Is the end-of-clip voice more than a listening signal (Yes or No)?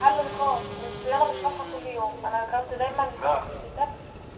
No